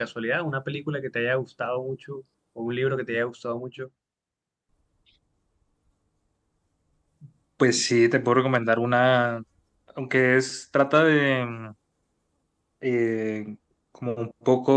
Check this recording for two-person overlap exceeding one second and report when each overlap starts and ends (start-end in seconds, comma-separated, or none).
none